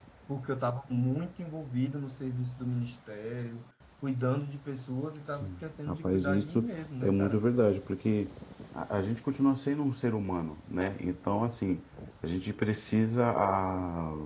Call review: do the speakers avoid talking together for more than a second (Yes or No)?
No